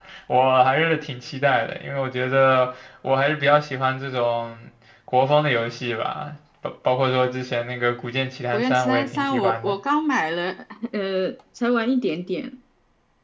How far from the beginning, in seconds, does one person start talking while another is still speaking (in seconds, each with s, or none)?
8.5 s